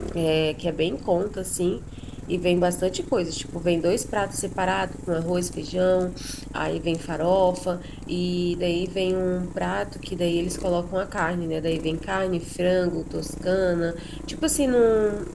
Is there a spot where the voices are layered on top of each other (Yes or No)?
No